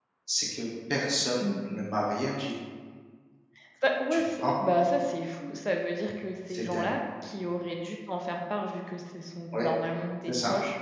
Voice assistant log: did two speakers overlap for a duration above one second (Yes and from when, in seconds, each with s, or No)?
No